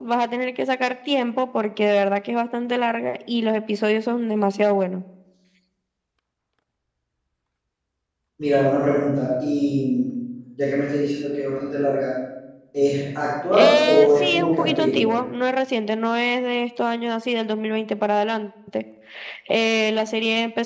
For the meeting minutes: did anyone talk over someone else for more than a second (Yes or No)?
Yes